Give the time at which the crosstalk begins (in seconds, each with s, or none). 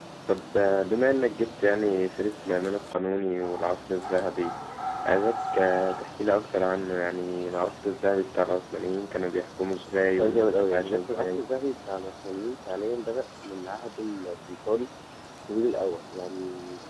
10.2 s